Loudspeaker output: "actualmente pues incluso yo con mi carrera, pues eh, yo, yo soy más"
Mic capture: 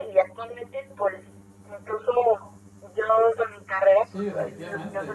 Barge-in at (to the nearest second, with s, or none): 4 s